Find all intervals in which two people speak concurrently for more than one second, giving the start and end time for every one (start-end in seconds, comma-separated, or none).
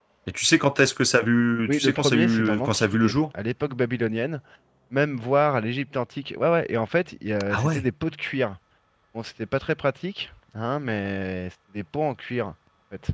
1.7-3.2